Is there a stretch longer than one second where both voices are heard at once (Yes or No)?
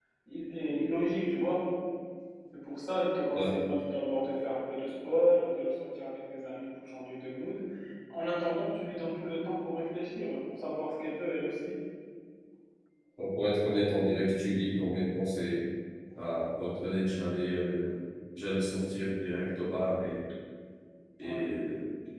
No